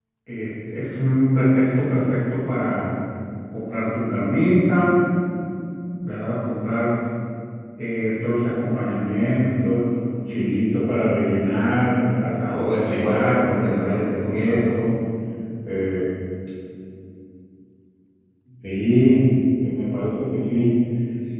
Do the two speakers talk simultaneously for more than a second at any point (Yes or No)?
Yes